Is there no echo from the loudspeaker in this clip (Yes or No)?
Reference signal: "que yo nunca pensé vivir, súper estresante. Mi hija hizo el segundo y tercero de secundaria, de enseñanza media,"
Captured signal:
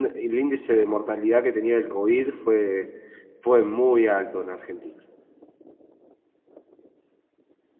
Yes